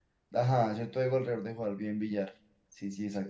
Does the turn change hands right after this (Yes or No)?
Yes